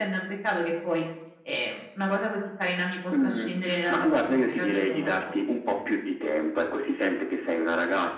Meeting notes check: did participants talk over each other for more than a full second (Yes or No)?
Yes